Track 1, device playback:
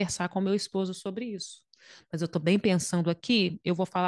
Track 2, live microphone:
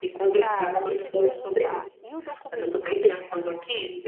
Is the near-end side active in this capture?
Yes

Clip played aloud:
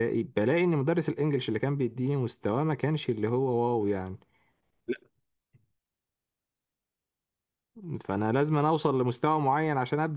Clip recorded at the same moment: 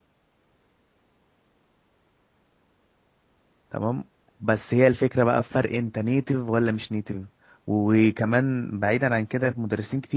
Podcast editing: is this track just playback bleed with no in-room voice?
No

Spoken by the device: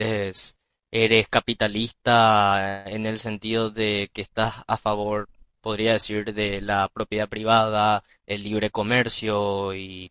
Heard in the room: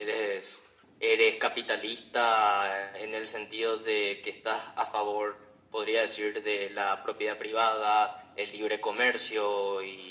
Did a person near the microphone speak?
No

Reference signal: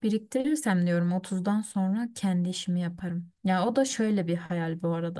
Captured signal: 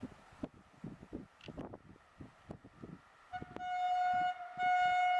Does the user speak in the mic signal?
No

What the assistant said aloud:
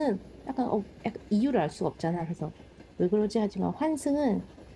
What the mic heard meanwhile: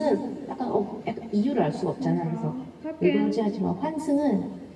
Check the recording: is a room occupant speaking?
Yes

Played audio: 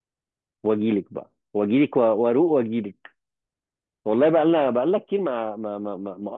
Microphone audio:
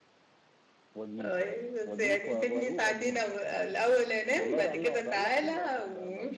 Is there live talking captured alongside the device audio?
Yes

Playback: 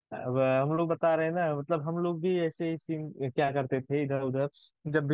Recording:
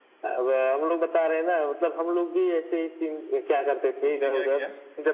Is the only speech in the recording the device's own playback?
No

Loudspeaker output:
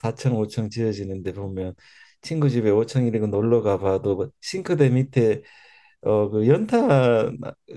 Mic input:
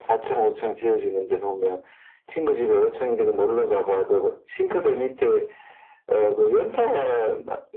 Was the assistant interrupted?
No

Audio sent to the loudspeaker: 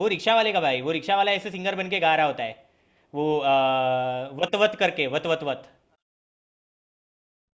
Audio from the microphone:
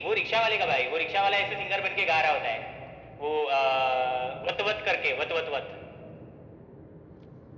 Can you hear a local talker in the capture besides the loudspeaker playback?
No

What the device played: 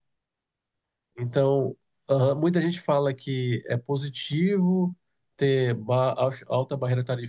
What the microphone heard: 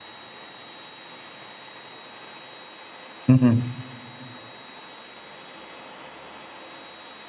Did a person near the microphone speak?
Yes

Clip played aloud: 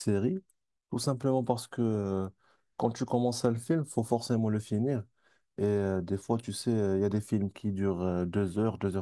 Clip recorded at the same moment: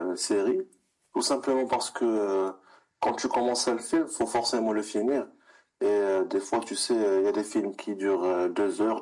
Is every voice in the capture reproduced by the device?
Yes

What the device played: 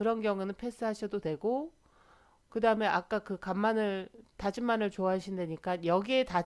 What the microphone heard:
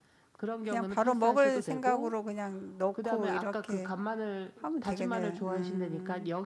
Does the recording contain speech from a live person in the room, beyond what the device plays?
Yes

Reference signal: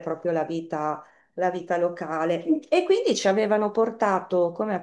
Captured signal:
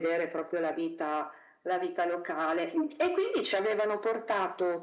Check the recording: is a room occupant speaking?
No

